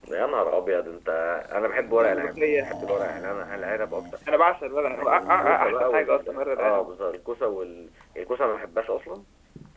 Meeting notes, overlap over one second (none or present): present